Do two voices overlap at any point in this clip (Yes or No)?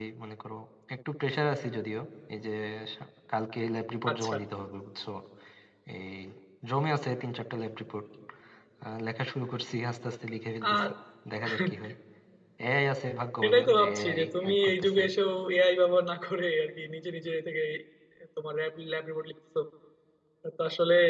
Yes